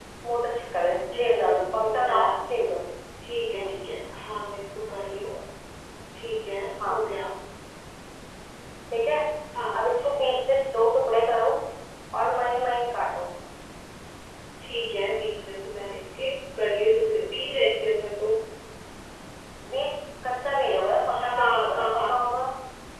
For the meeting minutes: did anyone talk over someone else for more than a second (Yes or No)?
Yes